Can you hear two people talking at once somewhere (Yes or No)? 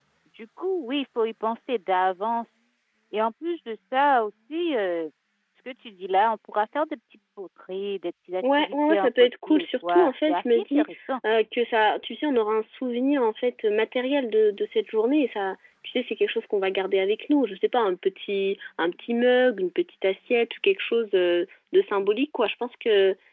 Yes